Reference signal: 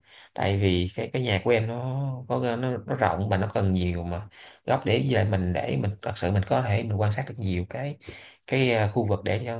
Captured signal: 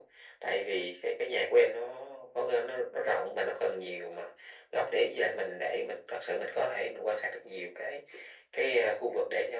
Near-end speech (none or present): none